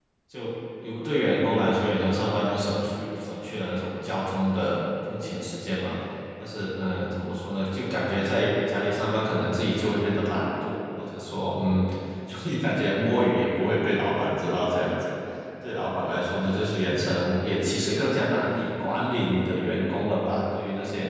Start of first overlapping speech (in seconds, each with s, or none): none